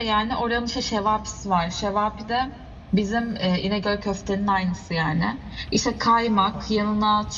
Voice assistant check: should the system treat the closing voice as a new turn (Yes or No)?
No